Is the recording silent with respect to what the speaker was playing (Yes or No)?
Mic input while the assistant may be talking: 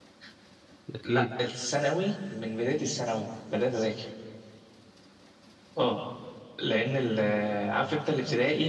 No